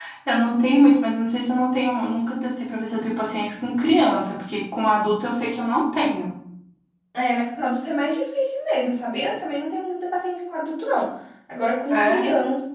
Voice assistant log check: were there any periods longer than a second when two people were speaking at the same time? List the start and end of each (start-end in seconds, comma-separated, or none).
none